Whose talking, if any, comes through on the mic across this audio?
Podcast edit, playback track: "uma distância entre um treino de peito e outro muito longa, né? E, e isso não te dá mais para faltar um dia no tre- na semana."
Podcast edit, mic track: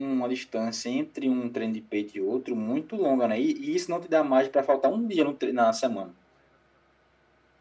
echo only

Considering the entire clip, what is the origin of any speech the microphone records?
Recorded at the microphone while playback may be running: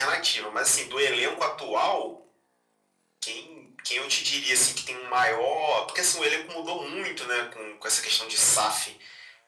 echo only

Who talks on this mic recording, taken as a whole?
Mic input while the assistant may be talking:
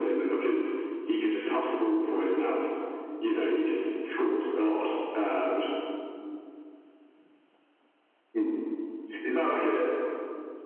echo only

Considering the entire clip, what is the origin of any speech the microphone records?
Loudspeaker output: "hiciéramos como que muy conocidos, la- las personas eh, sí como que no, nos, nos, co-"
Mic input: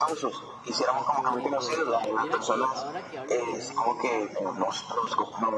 both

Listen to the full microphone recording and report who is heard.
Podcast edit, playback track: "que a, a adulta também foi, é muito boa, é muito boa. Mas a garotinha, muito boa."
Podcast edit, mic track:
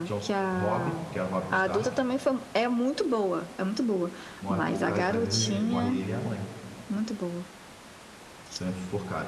both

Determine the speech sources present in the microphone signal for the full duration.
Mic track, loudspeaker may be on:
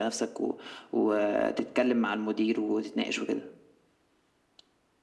echo only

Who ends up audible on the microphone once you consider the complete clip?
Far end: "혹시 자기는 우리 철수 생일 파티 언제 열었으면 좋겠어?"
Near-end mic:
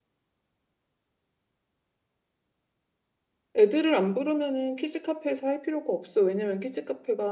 user only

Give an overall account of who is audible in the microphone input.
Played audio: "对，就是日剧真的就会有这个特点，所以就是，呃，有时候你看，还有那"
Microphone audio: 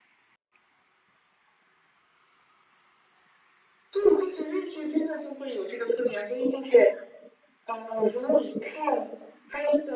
echo only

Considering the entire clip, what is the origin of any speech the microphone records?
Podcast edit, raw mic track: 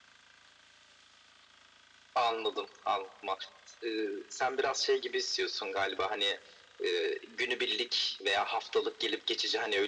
echo only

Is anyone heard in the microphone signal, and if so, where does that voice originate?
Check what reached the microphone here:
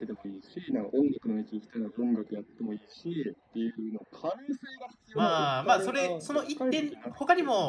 both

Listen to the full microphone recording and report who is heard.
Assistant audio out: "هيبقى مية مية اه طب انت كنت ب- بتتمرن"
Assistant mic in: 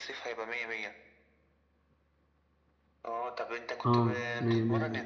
both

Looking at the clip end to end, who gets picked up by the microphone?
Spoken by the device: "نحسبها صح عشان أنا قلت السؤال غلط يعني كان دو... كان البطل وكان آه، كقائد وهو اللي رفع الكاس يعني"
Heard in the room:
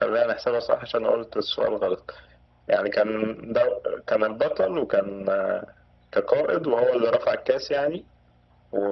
echo only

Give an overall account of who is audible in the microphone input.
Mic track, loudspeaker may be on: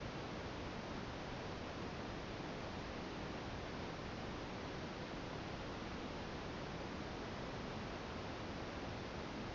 neither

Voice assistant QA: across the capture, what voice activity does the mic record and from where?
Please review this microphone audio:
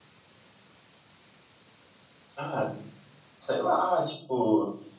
user only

